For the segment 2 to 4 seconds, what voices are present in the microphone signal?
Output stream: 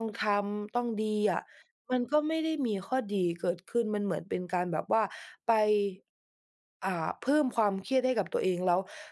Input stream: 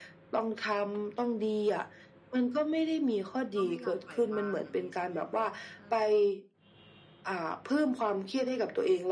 both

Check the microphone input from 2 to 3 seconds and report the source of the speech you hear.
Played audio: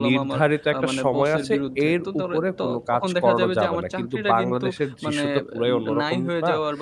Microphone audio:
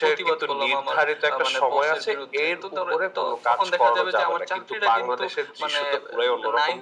echo only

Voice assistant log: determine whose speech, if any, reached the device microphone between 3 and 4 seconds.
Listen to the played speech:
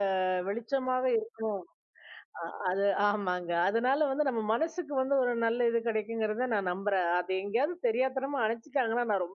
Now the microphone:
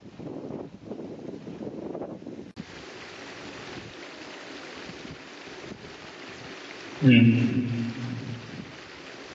neither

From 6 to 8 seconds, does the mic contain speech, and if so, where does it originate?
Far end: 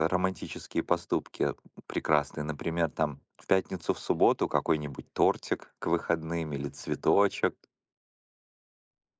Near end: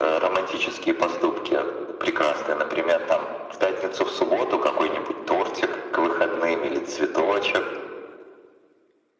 echo only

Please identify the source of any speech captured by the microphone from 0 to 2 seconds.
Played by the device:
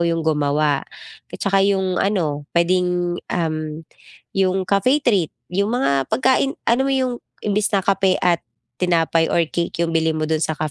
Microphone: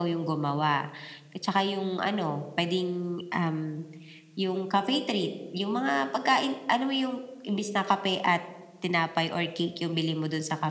echo only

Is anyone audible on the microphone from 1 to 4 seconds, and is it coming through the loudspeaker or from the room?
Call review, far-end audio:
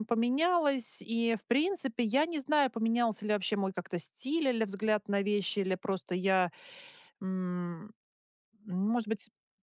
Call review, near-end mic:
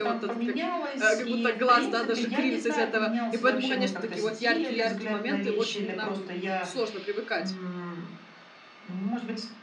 both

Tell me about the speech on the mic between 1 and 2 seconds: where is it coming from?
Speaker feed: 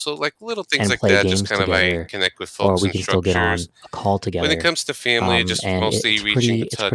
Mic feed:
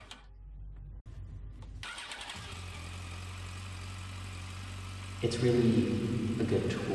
neither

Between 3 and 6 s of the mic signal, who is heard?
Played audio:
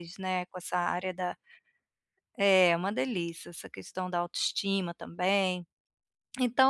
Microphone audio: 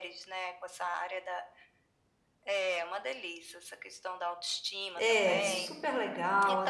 both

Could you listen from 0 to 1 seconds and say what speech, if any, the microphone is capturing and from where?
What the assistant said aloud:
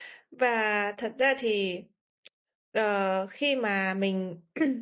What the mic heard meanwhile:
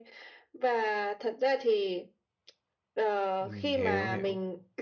echo only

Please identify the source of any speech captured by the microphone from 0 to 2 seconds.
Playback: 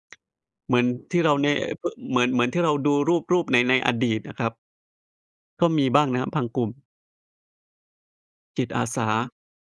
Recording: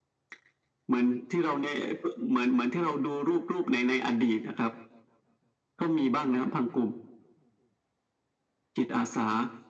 echo only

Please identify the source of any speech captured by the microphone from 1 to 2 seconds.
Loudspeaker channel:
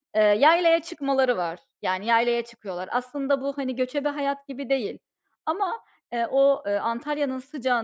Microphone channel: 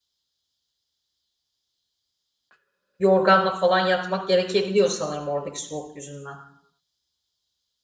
neither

